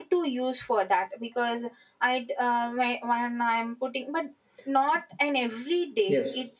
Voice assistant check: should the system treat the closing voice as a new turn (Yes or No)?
No